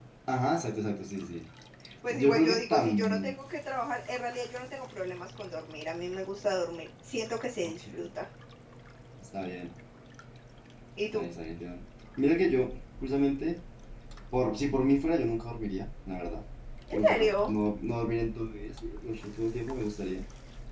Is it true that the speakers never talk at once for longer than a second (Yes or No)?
No